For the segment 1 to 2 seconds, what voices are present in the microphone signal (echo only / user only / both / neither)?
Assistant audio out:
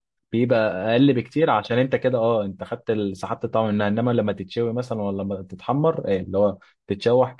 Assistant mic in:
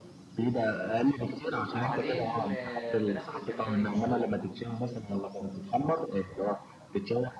both